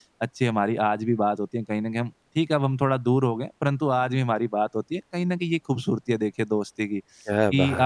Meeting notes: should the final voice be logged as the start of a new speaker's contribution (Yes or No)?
No